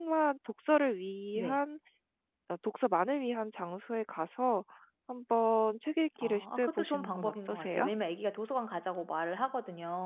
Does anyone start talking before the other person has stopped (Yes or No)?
Yes